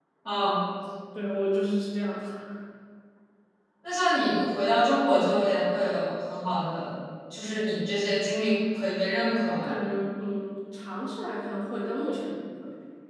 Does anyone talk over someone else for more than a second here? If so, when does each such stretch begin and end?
none

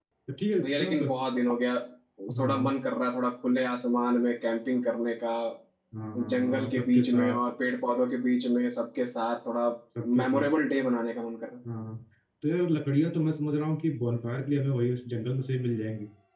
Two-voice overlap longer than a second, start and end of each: 6.2-7.4

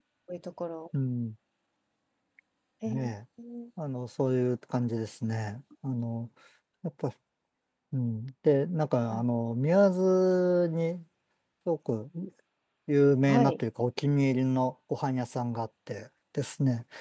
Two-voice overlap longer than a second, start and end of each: none

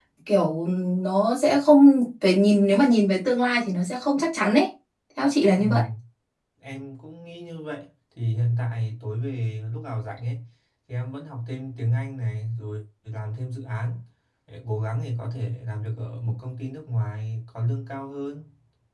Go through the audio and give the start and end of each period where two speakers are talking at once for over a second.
none

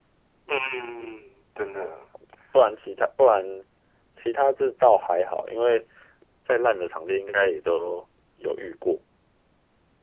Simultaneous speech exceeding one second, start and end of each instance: none

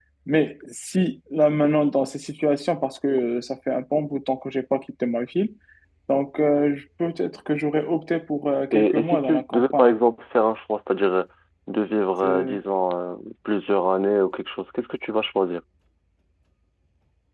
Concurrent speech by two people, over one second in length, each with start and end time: 8.7-9.9

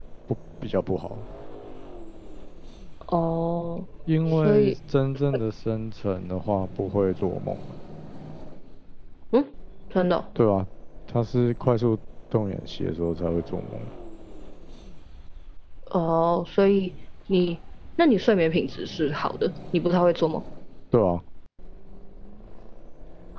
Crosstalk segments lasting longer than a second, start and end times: none

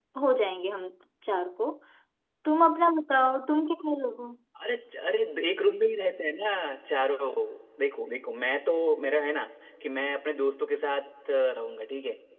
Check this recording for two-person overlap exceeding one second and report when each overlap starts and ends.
none

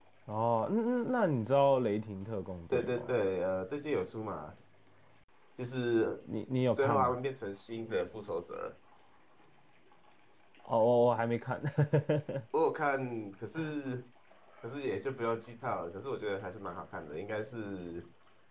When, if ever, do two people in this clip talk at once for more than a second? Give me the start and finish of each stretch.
none

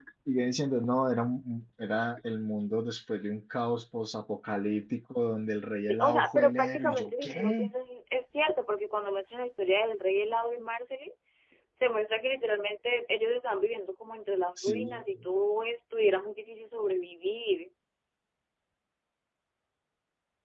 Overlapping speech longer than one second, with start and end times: 5.9-7.7

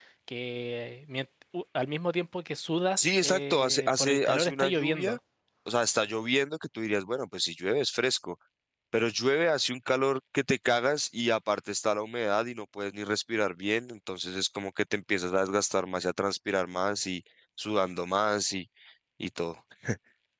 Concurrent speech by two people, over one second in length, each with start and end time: 3.0-5.2

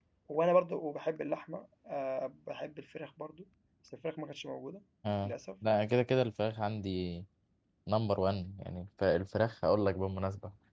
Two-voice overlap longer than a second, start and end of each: none

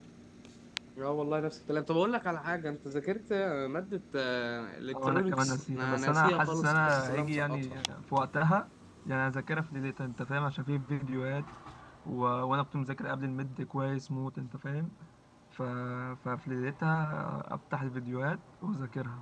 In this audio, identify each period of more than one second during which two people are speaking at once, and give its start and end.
4.9-7.7

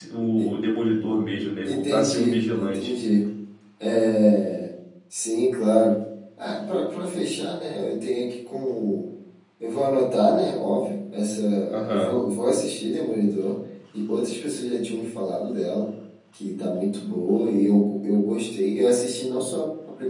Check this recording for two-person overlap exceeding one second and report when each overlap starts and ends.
1.6-2.9

